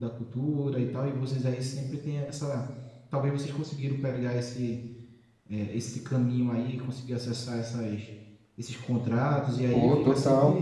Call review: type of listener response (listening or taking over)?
taking over